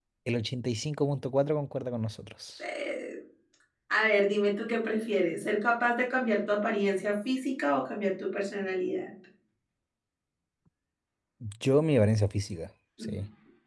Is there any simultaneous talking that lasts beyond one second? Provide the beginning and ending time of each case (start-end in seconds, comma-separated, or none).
none